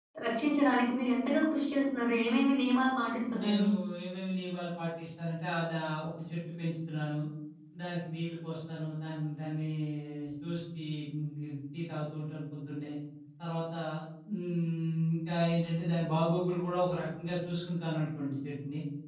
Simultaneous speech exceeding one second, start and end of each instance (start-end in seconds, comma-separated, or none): none